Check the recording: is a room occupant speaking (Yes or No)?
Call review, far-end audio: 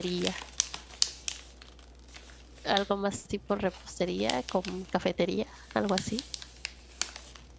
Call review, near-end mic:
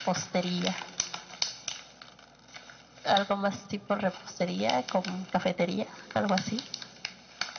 No